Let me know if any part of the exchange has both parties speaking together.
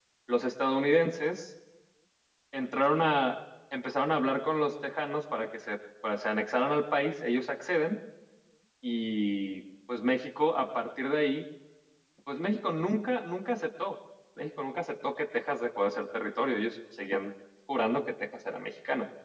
No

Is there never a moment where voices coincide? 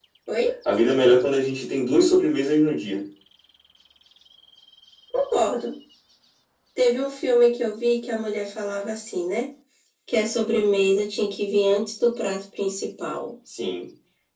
Yes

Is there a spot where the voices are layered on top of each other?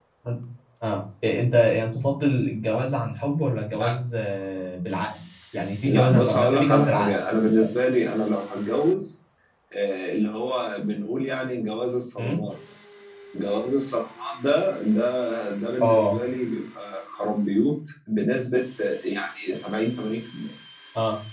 Yes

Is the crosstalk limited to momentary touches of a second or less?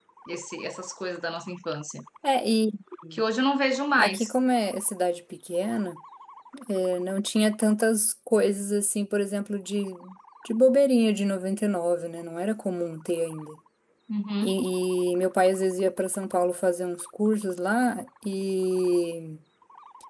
Yes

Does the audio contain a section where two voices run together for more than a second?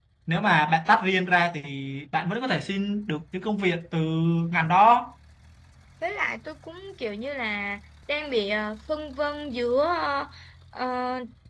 No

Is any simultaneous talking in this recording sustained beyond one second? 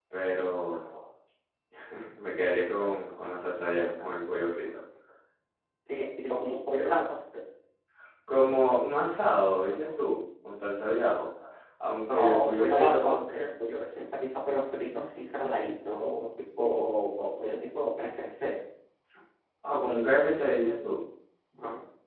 Yes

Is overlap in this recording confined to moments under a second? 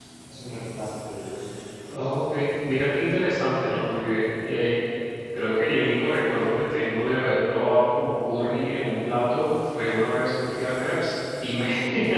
Yes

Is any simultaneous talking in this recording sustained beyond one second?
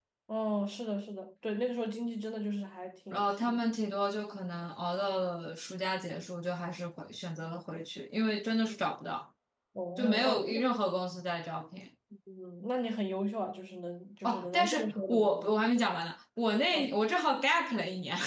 Yes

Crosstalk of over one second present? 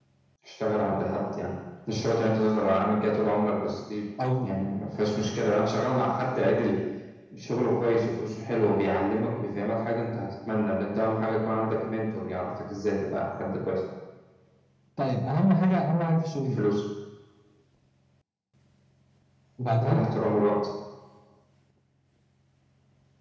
No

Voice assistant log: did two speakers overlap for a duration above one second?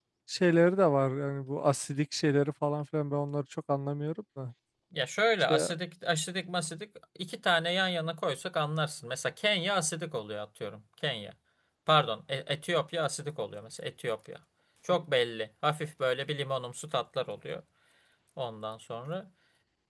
No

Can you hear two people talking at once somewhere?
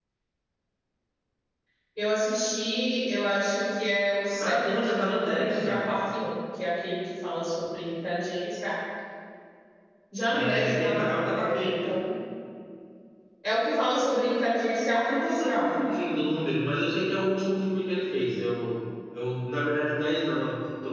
Yes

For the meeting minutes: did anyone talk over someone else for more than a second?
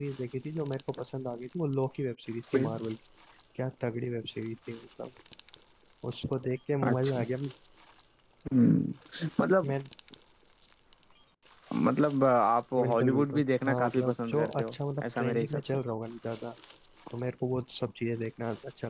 Yes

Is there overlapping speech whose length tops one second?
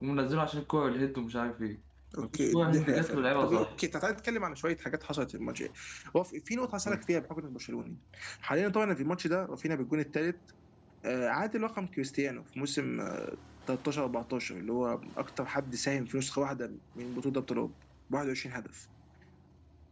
Yes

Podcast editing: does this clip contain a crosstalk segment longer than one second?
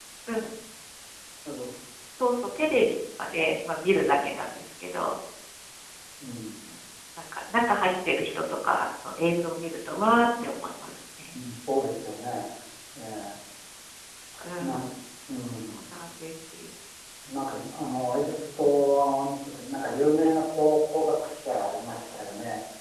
No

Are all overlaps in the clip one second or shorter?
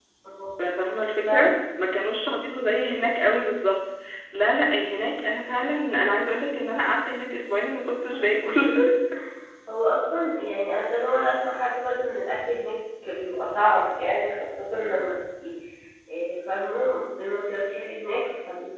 No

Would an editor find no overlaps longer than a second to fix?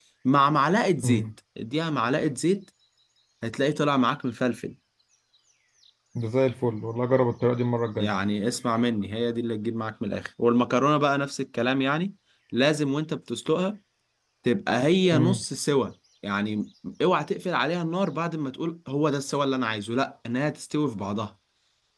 Yes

